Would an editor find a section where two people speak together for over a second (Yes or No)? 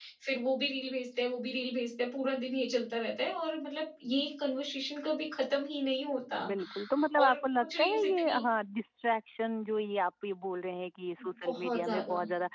Yes